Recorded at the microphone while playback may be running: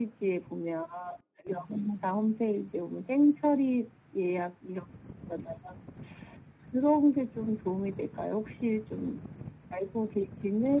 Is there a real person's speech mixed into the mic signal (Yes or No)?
No